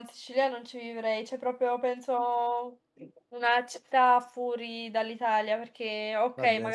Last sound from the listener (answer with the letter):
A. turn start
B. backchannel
B